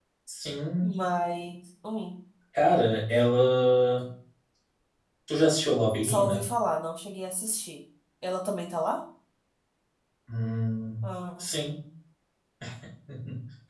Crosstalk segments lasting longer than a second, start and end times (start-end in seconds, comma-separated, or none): none